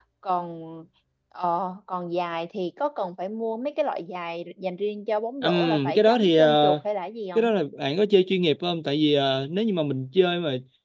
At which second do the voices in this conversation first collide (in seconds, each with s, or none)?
5.4 s